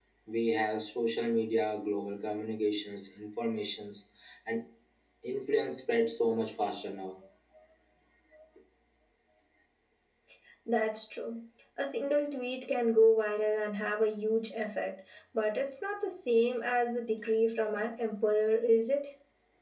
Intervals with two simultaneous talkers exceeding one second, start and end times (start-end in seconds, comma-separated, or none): none